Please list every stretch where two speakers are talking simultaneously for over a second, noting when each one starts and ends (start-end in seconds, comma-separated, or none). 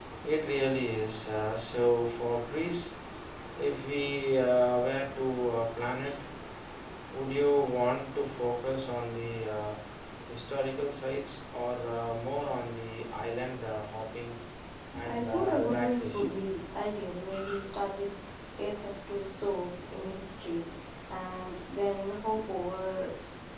15.0-16.4